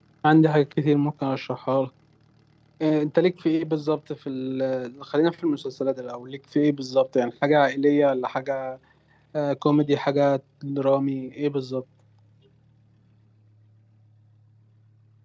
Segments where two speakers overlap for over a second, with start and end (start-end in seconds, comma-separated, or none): none